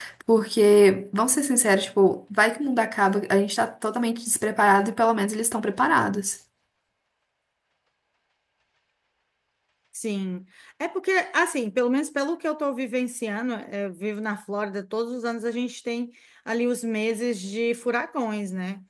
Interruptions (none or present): none